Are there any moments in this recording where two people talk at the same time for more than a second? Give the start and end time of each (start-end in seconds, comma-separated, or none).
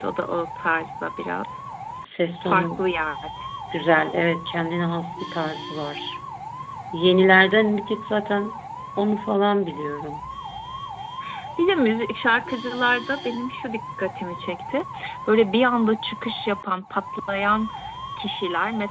none